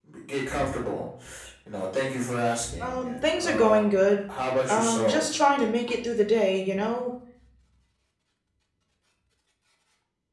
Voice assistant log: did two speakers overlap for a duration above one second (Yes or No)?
Yes